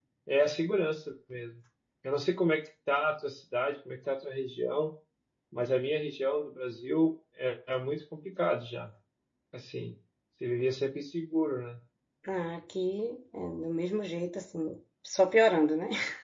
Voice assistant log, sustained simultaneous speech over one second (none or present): none